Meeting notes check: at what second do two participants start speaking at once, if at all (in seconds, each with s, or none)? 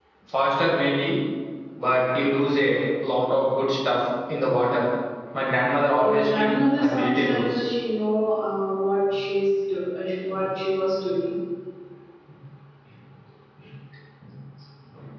6.0 s